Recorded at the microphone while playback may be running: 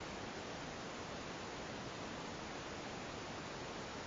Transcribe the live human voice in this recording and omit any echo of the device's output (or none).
none